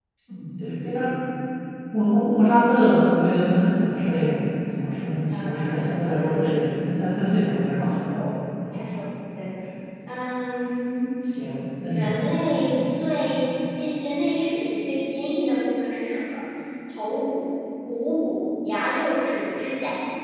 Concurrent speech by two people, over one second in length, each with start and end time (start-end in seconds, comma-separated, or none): 5.3-6.6